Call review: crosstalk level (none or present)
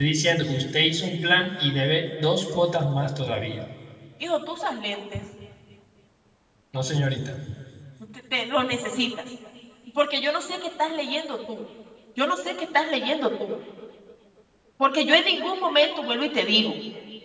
none